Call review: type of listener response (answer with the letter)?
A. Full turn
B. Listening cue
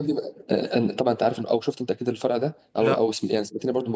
B